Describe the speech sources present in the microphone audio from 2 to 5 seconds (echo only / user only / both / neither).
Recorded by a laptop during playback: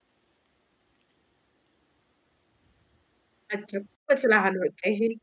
user only